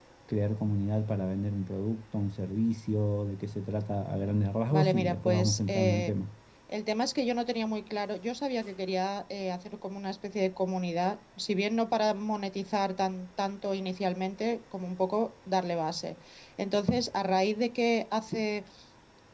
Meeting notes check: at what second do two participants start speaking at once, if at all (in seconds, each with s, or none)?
4.7 s